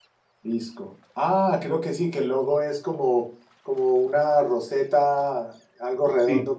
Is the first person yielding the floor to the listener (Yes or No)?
No